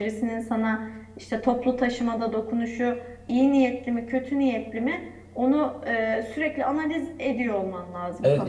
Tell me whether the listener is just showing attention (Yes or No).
No